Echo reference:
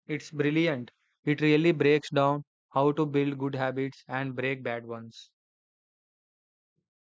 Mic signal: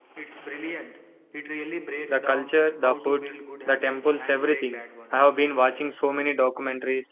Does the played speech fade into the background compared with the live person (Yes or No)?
Yes